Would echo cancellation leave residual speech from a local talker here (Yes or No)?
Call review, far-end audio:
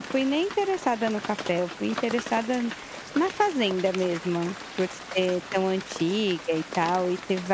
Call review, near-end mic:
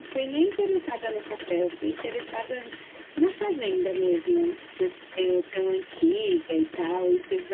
No